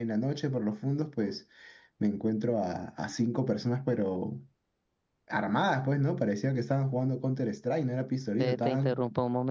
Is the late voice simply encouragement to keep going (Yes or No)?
No